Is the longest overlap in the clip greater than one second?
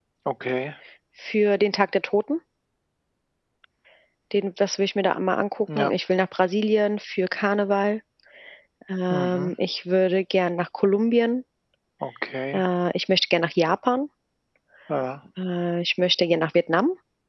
No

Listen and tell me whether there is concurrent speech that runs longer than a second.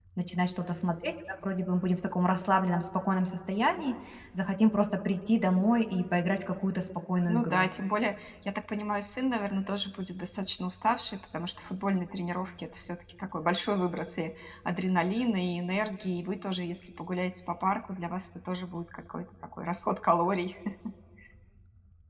No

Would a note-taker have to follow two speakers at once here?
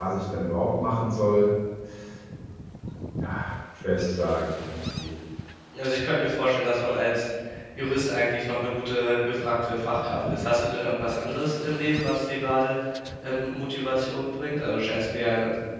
No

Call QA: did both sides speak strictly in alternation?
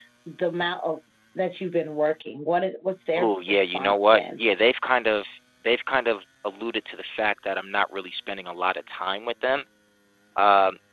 No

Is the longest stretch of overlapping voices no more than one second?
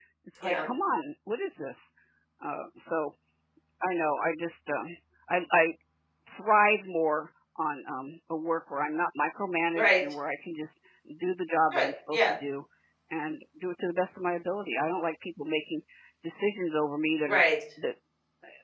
Yes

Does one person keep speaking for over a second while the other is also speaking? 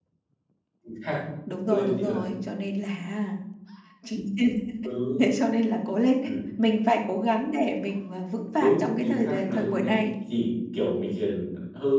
Yes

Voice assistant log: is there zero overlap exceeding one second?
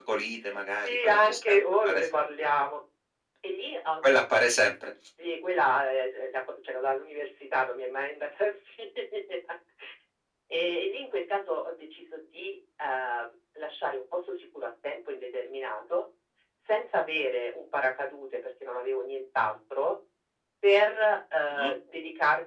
No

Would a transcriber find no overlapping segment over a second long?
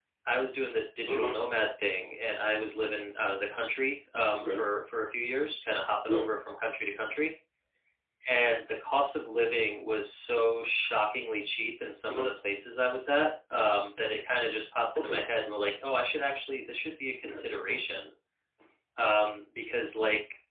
Yes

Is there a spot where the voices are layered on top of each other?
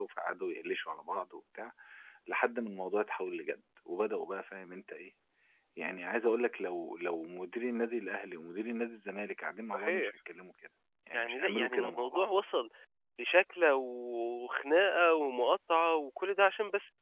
Yes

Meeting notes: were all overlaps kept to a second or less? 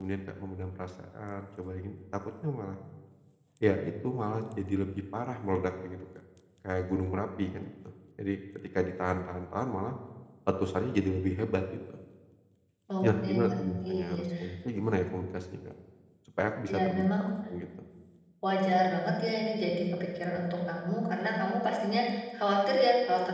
No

